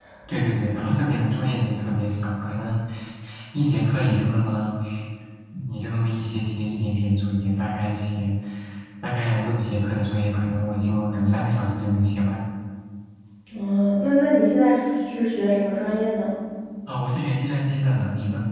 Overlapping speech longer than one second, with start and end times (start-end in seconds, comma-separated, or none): none